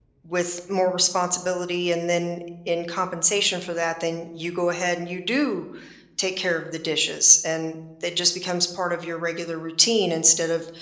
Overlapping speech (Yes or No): No